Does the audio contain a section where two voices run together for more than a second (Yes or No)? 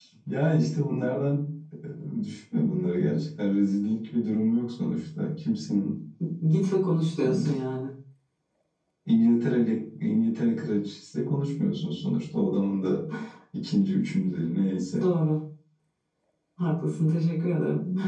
No